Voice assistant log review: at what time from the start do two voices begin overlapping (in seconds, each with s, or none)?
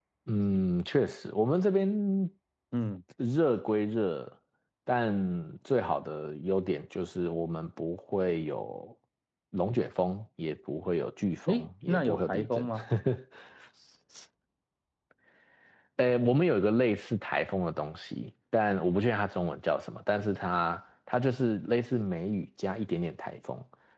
11.5 s